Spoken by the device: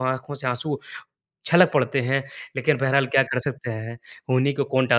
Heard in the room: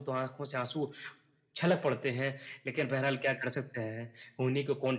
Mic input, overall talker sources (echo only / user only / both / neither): echo only